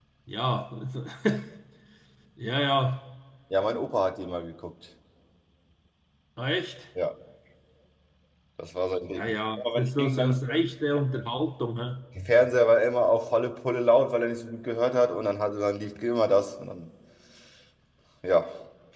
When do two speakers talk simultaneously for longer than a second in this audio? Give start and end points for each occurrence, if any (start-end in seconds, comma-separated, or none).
9.2-10.4